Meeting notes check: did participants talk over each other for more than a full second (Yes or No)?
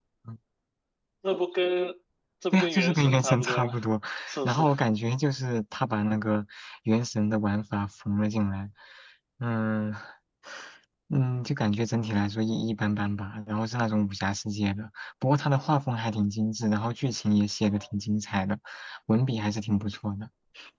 Yes